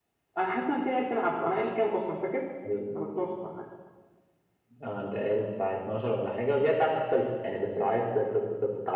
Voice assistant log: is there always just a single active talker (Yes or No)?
Yes